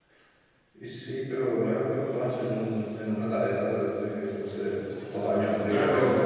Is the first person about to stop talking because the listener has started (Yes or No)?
Yes